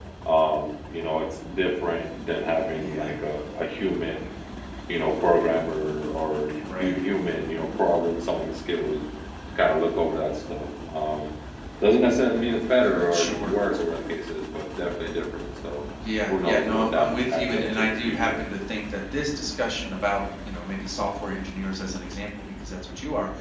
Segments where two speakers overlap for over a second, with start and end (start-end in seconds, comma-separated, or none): 16.3-18.4